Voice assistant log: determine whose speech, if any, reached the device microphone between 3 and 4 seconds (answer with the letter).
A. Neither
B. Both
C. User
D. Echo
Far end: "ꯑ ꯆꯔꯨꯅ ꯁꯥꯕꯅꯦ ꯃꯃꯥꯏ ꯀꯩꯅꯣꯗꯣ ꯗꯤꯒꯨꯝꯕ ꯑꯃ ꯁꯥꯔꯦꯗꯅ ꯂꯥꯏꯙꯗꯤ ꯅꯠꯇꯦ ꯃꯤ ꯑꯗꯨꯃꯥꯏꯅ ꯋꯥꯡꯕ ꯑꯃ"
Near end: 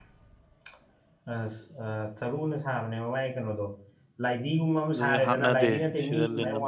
D